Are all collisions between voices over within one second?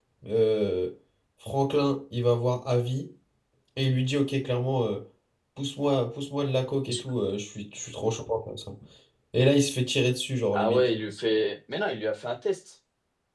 Yes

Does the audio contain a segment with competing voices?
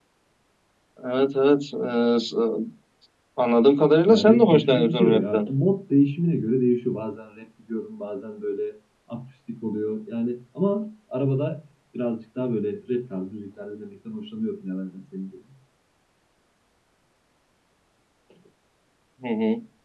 Yes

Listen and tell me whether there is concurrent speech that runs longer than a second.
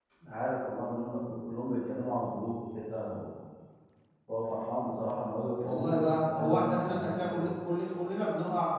Yes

